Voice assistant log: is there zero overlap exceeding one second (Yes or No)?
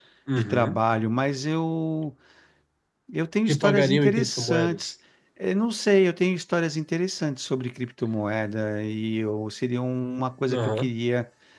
No